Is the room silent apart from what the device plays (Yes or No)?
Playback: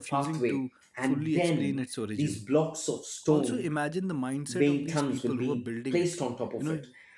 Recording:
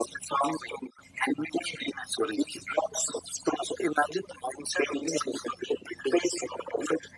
Yes